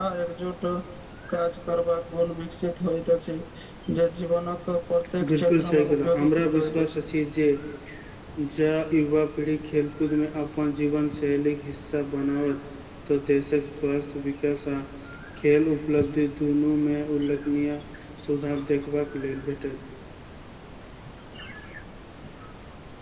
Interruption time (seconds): 5 s

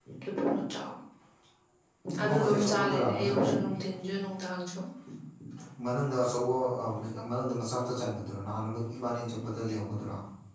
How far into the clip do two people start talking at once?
2 s

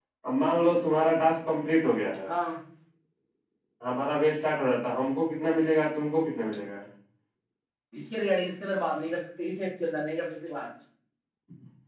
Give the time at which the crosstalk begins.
none

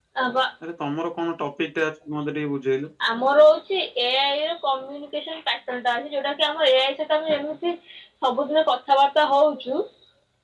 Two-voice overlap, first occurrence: none

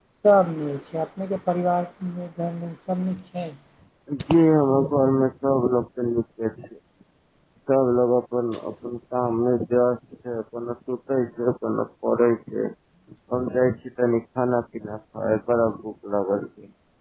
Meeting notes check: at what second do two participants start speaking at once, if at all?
none

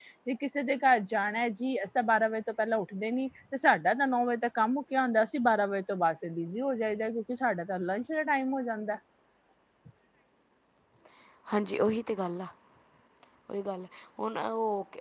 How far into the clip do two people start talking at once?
none

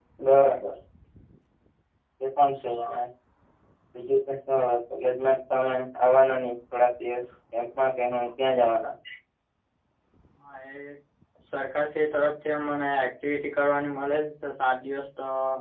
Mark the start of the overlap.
none

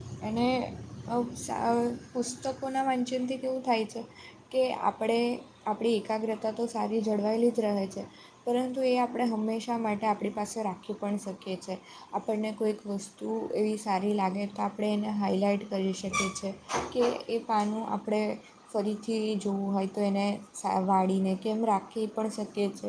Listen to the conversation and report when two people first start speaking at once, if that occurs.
none

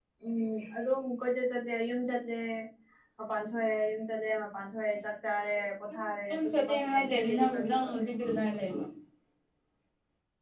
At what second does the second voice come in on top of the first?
6 s

